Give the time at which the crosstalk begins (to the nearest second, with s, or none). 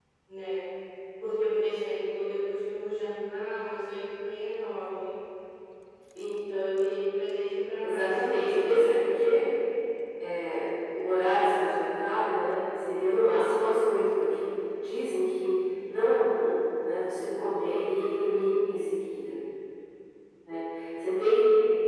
8 s